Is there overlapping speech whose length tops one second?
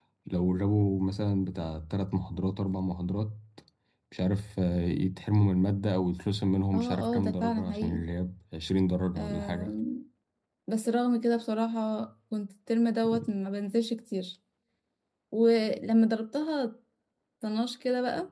Yes, from 6.7 s

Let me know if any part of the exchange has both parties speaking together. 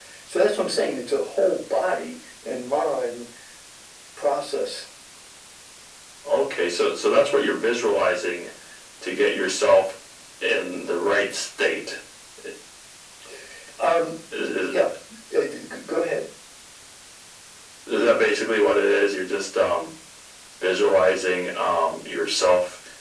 No

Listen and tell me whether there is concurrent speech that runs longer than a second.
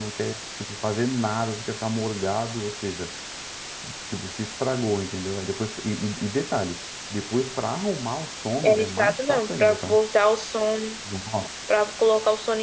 Yes, from 8.6 s

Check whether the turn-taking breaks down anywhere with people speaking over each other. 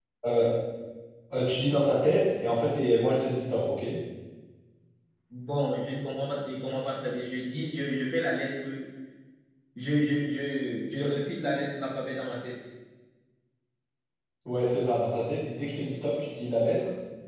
No

